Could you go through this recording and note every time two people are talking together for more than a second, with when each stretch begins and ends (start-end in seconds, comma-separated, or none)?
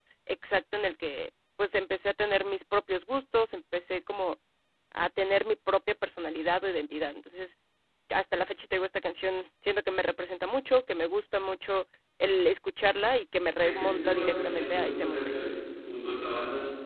13.6-15.4